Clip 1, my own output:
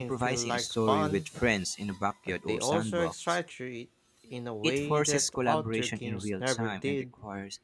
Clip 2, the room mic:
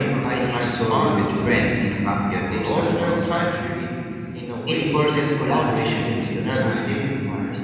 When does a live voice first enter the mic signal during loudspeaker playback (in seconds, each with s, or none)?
none